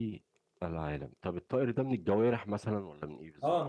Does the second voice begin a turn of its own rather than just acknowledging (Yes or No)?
Yes